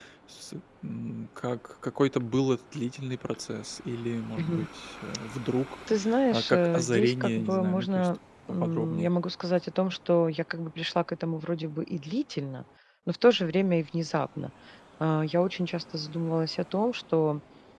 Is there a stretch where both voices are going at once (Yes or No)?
Yes